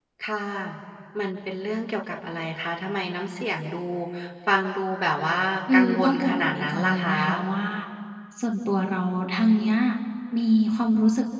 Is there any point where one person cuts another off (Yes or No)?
Yes